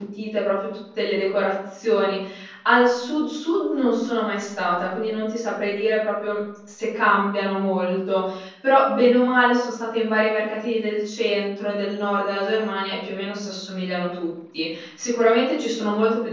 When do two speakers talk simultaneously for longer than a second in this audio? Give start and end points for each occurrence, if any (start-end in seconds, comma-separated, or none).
none